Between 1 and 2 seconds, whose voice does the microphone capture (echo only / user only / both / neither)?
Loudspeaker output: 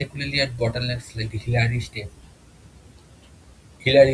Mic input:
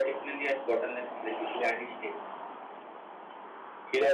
echo only